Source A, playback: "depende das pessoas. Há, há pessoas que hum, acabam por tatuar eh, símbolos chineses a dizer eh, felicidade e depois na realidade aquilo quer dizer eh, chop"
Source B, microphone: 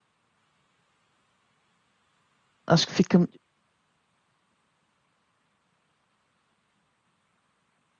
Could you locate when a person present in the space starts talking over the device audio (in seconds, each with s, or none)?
2.7 s